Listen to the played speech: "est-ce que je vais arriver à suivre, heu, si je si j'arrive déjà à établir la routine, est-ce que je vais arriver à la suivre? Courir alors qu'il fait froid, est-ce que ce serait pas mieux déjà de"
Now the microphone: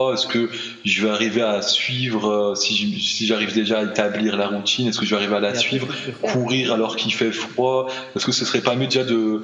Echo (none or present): present